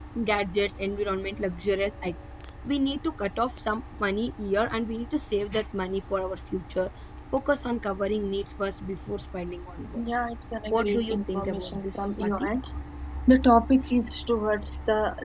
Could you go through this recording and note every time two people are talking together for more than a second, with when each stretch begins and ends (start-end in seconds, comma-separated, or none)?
10.7-12.5